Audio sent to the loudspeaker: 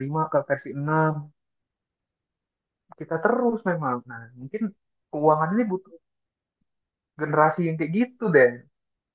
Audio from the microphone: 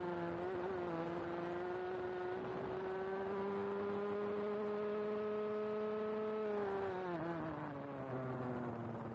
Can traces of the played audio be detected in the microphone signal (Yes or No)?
No